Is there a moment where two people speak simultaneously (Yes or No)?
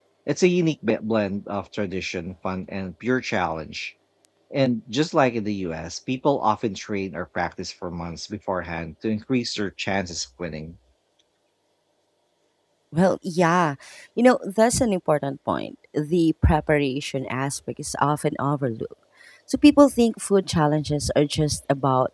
No